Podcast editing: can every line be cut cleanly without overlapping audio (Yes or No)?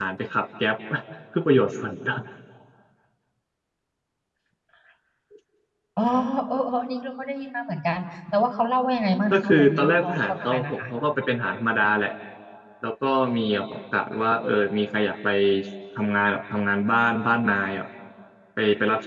No